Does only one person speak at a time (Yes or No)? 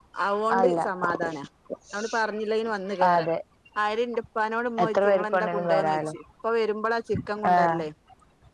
No